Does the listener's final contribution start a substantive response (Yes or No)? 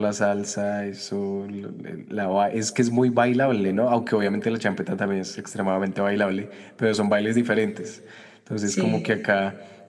No